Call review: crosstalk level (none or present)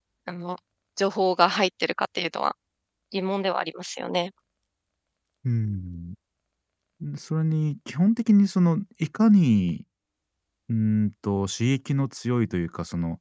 none